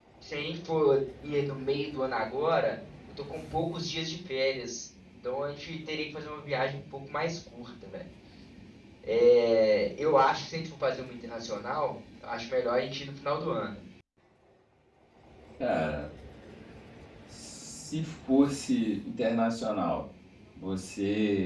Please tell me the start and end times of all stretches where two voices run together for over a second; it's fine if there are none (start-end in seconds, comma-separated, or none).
none